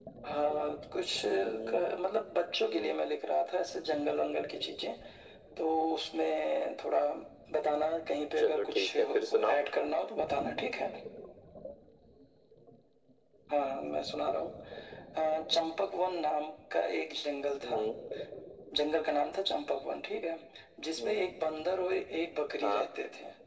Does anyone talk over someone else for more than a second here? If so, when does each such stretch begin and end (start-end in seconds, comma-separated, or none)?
8.4-9.6